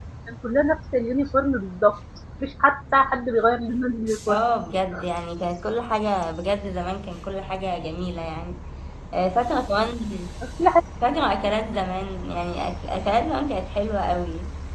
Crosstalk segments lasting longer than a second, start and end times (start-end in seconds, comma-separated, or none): none